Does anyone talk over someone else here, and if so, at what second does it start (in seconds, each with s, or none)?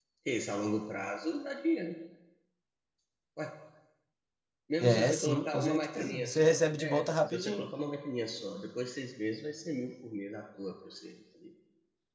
4.8 s